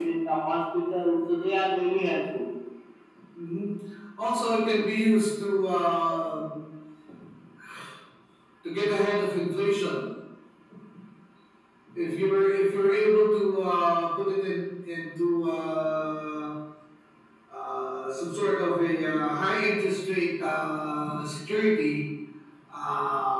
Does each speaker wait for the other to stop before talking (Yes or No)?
Yes